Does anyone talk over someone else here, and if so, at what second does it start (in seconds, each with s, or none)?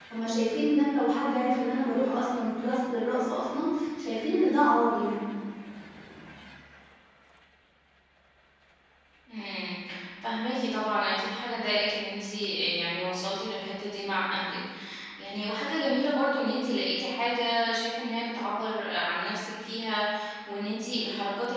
none